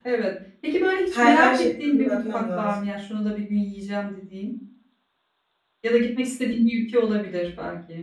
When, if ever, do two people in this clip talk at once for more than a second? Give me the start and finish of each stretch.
1.1-2.7

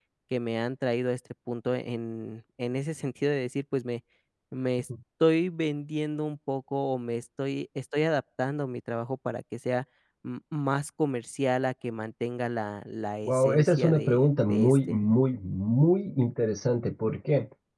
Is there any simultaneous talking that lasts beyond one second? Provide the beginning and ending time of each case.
13.2-15.0

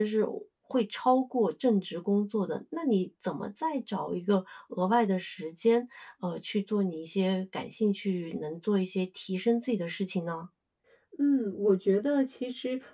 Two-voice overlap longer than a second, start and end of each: none

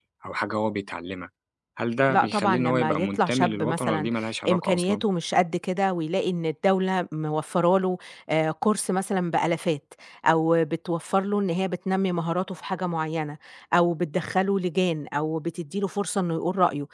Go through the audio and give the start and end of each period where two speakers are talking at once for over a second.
2.1-4.1

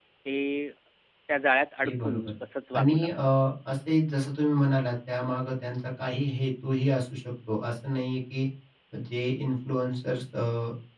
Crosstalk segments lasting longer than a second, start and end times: none

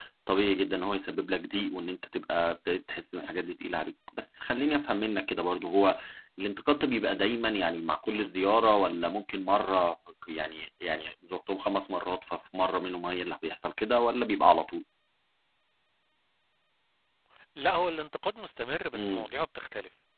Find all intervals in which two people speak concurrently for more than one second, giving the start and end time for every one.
none

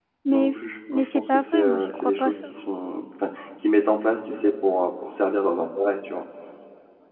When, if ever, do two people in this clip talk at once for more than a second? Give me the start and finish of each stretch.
0.9-2.5

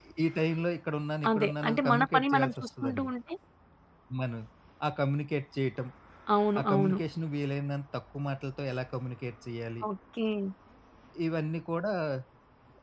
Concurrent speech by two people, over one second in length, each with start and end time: 1.3-3.1

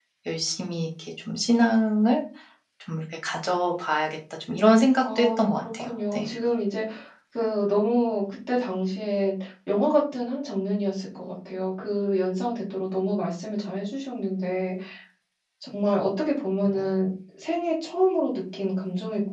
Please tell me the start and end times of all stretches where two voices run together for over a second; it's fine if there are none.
5.0-6.3

